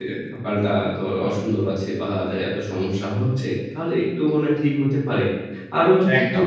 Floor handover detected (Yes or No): No